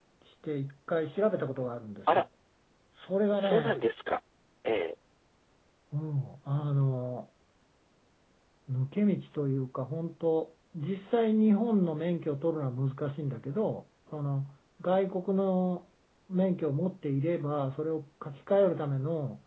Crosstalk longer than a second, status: none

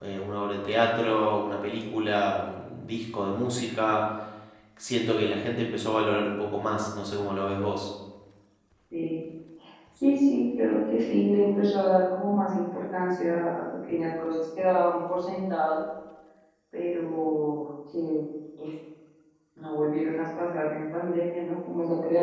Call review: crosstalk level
none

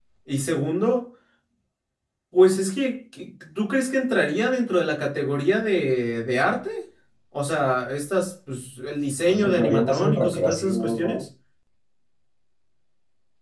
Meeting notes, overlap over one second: present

